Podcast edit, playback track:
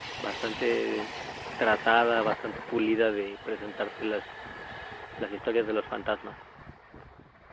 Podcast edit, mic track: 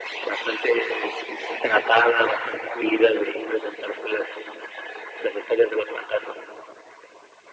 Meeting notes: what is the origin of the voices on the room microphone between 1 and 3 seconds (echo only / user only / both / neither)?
echo only